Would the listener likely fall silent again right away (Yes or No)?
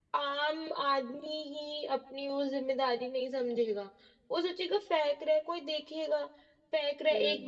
Yes